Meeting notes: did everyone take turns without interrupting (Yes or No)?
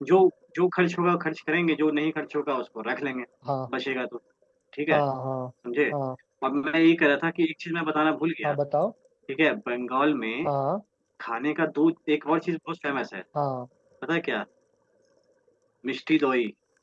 Yes